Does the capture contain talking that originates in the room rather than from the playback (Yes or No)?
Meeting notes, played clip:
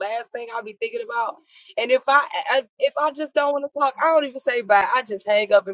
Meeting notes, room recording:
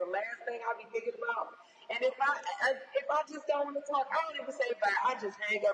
No